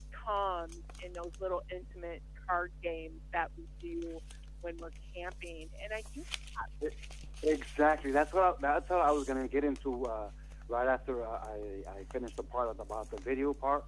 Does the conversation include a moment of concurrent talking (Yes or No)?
No